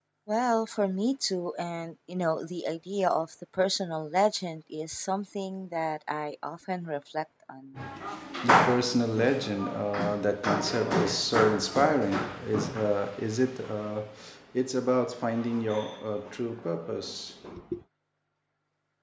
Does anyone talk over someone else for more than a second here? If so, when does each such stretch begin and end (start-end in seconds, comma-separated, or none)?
none